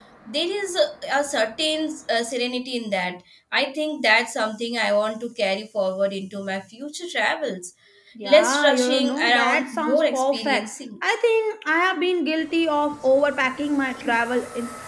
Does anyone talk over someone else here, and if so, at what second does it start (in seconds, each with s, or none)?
8.2 s